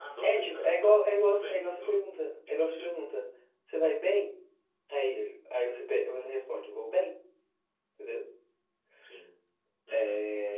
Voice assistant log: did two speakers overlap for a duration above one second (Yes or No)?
Yes